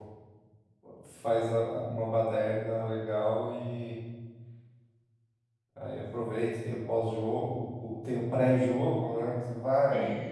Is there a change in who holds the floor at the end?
Yes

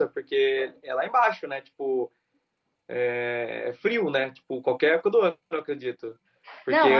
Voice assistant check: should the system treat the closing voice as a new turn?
No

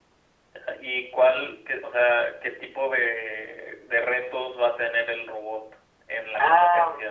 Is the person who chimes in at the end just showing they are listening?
No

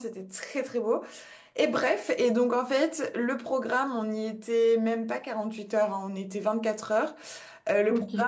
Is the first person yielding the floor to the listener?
No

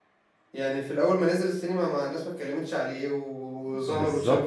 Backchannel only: No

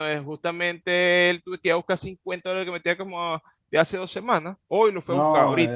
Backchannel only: No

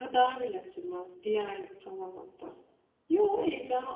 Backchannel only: Yes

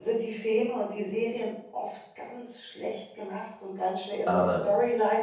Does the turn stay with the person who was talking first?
Yes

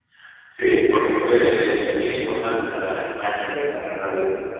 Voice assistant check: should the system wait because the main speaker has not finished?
No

